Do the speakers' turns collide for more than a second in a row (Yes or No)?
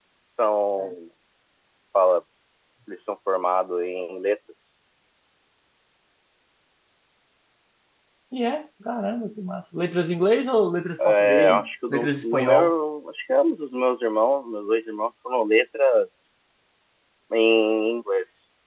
Yes